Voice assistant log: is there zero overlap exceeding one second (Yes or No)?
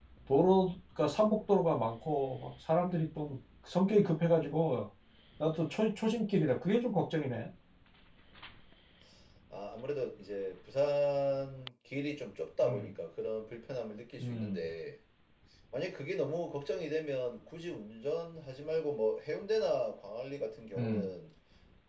Yes